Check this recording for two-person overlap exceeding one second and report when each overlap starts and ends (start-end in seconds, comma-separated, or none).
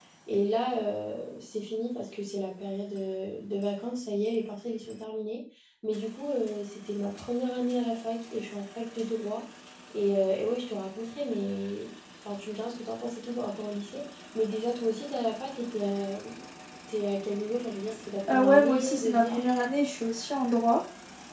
18.3-19.6